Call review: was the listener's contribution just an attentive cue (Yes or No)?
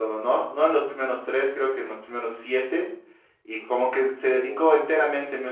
Yes